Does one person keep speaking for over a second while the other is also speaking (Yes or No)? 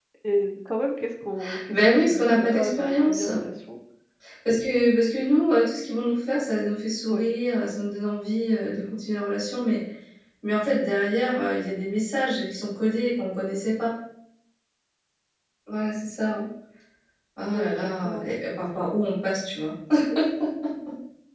Yes